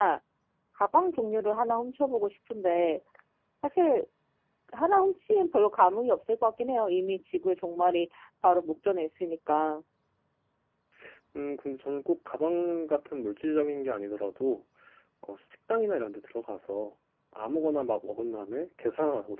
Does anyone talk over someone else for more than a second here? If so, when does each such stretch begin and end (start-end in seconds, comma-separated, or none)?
none